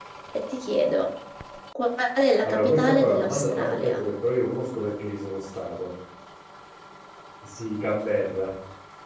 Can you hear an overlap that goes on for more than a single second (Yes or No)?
Yes